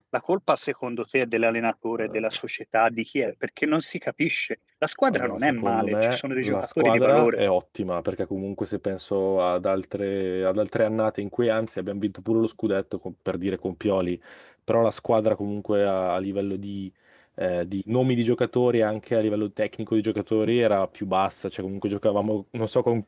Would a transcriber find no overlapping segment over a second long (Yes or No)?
No